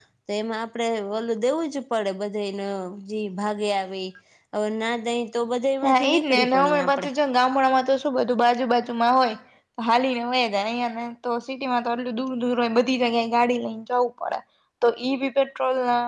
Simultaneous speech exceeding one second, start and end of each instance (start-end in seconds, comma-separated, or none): 5.8-7.1